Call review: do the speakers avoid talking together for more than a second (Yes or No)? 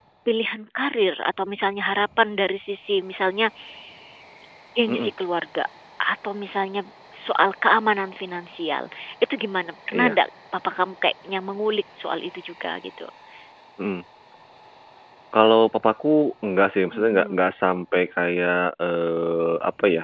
Yes